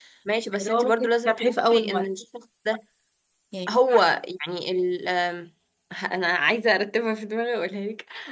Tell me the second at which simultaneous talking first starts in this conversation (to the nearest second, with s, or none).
1 s